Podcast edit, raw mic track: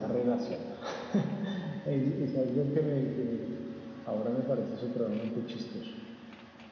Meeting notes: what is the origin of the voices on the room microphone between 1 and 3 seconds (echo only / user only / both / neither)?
echo only